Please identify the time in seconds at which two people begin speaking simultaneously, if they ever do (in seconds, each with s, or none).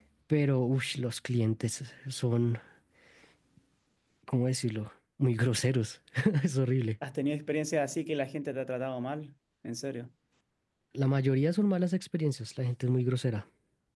none